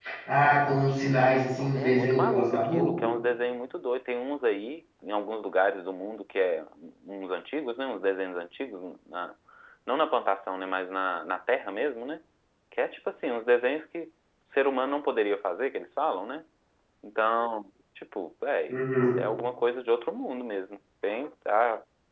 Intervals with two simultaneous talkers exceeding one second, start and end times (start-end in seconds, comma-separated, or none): 1.8-3.1